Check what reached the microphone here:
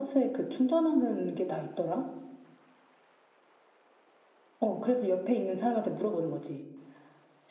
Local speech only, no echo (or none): none